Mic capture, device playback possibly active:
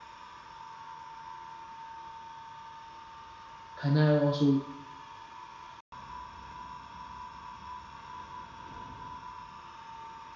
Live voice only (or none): can I also